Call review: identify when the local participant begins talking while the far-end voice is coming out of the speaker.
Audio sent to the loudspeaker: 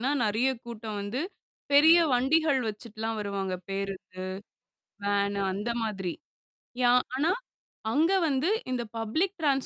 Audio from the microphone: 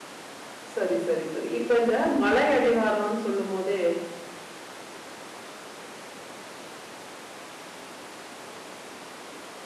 0.8 s

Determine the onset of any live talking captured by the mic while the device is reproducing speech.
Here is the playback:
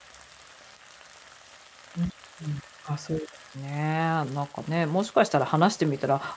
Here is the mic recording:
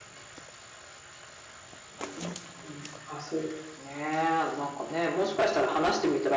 none

